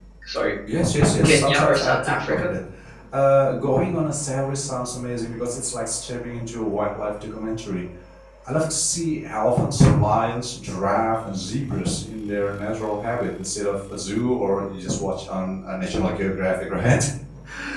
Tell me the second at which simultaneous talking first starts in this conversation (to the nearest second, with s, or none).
1 s